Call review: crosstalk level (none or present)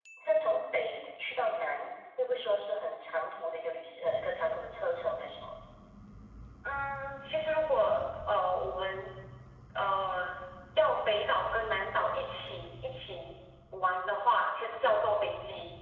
none